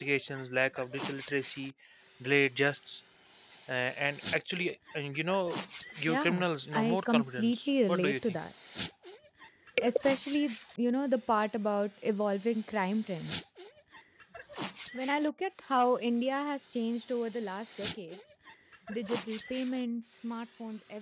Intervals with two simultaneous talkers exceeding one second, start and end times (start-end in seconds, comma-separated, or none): 6.0-8.4